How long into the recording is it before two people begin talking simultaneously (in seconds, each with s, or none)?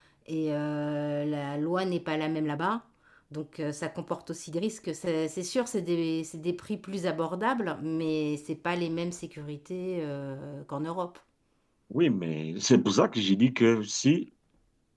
none